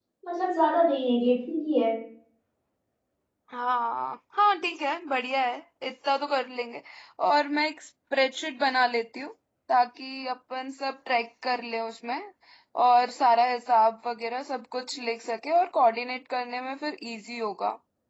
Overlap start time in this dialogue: none

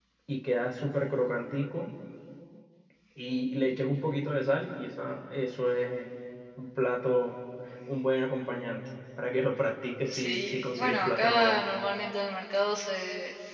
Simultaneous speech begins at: 10.1 s

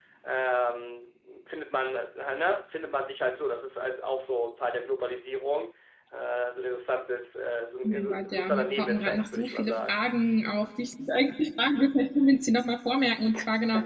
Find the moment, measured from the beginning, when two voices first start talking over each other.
7.9 s

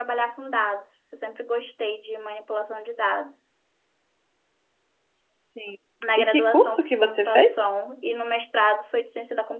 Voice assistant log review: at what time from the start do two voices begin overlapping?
6.2 s

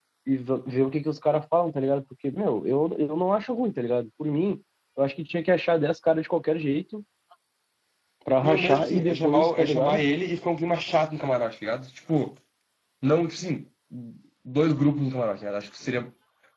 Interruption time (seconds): 8.4 s

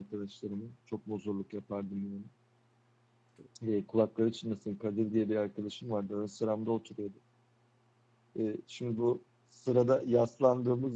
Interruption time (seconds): none

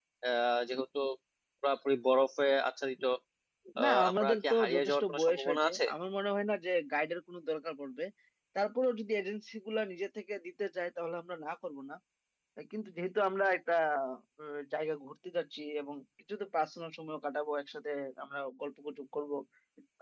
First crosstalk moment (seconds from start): 3.8 s

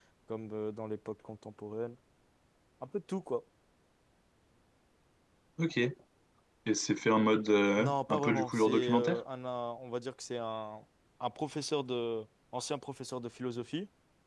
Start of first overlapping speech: 7.8 s

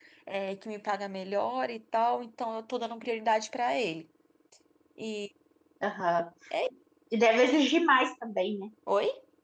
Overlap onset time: none

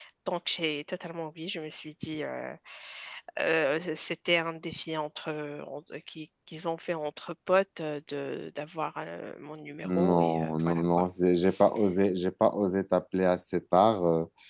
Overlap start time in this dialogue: 9.8 s

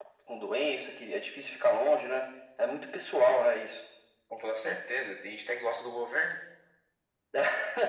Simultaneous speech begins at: none

